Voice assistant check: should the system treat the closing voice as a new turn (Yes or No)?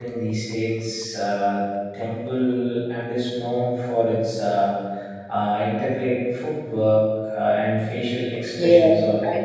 Yes